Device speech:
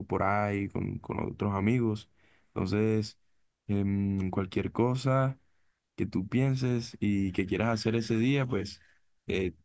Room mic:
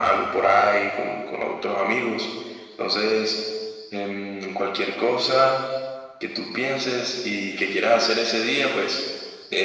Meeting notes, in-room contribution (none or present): none